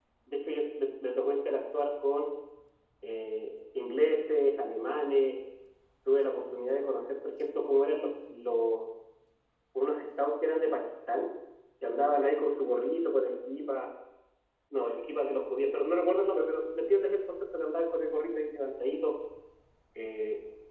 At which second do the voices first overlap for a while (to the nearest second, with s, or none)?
none